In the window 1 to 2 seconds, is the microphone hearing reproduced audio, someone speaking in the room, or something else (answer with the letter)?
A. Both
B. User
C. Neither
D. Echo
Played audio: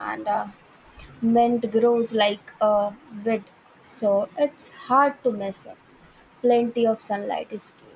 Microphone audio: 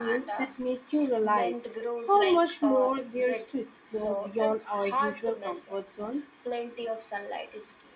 A